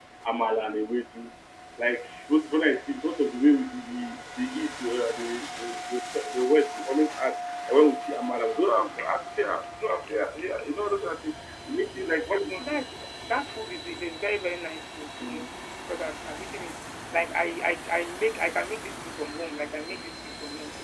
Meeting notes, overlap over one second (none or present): none